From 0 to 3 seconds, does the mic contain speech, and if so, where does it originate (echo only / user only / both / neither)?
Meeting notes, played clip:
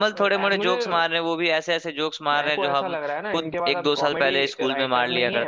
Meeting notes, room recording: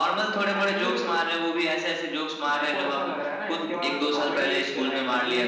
echo only